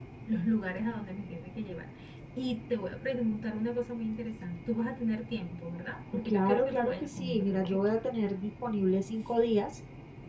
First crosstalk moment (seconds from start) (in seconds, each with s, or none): 6.1 s